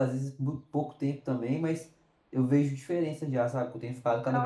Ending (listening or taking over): taking over